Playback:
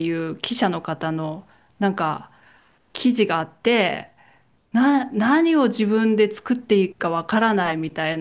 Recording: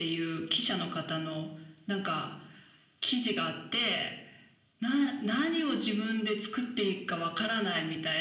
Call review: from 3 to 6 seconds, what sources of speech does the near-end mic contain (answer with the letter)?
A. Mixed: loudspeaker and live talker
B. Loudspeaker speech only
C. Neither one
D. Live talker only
B